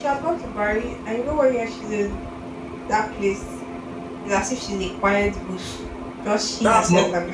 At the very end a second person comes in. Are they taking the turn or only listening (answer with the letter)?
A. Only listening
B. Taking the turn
B